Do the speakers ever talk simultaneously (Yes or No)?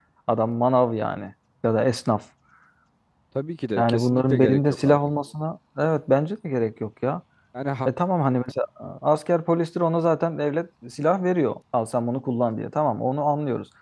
Yes